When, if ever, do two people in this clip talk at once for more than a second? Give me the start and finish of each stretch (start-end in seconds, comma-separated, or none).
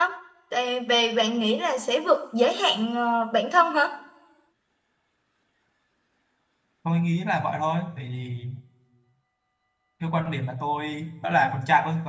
none